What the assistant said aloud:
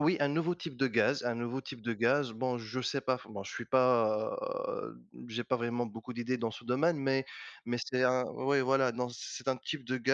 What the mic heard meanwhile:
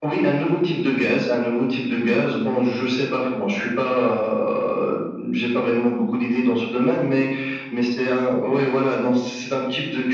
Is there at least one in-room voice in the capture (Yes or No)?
No